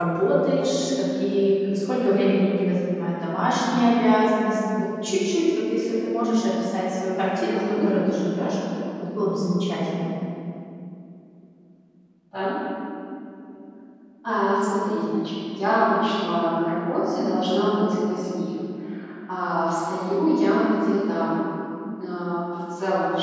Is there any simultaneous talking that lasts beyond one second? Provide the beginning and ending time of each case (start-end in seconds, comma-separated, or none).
none